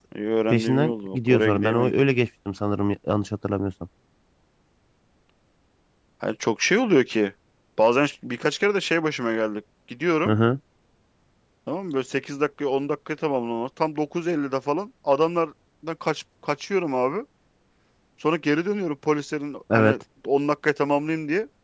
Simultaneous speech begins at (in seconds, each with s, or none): 0.5 s